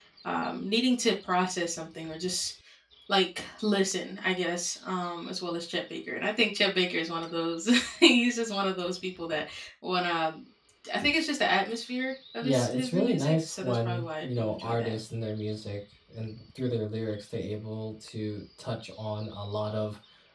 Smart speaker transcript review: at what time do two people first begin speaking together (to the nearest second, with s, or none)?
12 s